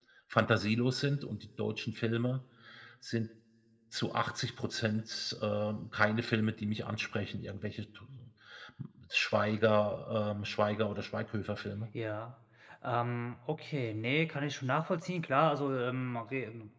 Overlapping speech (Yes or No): No